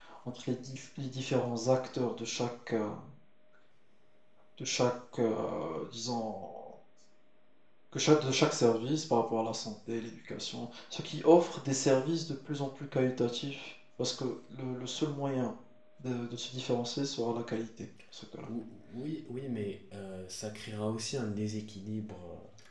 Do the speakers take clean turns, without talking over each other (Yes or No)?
Yes